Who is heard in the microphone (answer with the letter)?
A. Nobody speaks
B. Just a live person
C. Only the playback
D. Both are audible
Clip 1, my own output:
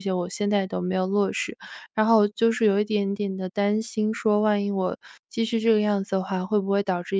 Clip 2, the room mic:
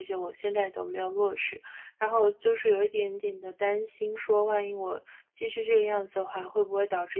C